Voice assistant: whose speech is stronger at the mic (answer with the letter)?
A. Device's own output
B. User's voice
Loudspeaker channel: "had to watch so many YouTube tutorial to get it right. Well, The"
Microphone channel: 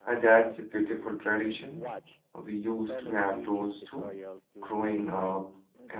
B